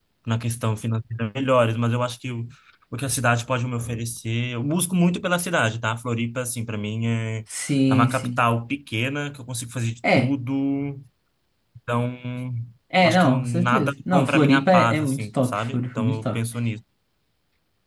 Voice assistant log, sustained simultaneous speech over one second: present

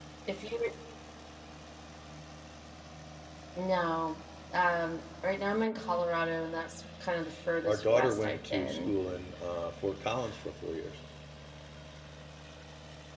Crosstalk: present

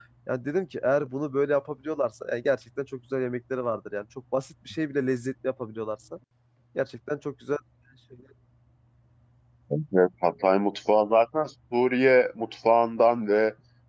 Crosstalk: none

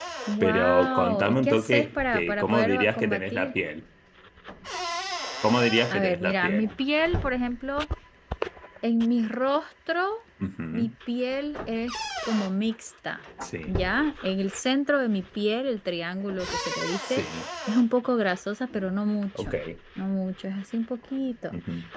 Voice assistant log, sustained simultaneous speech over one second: present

